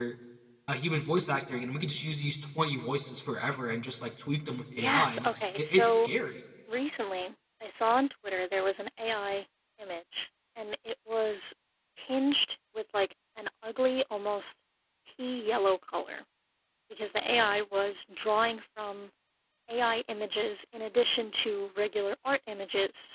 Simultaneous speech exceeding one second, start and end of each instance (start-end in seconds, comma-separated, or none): 4.8-6.1